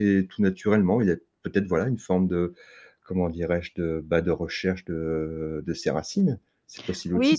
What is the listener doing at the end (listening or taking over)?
taking over